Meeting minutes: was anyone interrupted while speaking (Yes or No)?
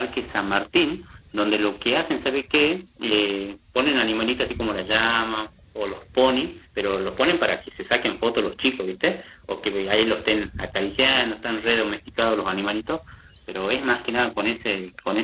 No